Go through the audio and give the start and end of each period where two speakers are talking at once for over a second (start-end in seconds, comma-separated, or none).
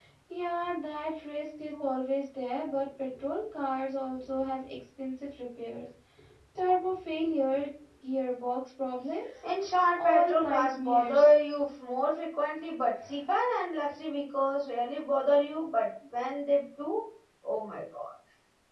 10.0-11.3